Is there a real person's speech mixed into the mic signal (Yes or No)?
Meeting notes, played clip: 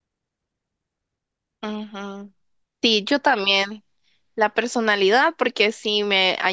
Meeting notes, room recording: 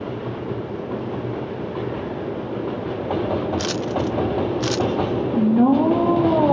Yes